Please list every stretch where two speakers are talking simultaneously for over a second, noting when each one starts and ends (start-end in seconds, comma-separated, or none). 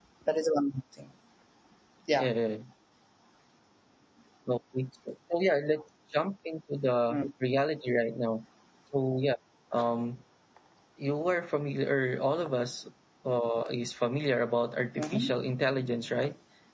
none